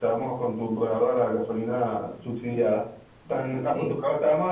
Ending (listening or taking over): listening